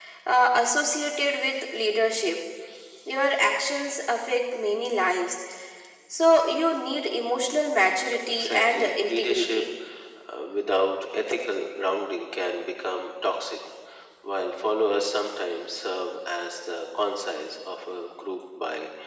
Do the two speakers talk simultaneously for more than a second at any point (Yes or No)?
Yes